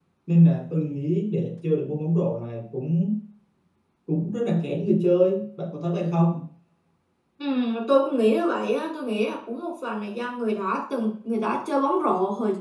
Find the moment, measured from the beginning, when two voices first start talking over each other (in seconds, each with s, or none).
none